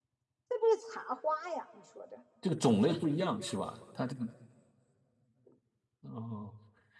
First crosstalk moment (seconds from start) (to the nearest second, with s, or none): none